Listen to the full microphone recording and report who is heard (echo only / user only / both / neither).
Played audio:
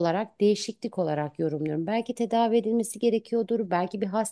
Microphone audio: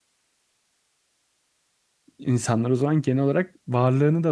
user only